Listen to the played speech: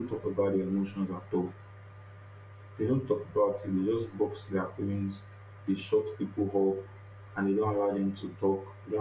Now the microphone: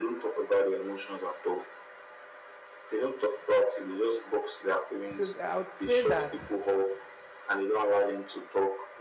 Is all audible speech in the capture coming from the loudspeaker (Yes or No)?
No